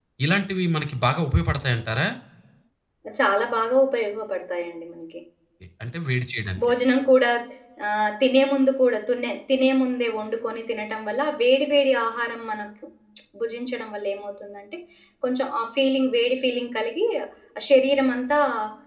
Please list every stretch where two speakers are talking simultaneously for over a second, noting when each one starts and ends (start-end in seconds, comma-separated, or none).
none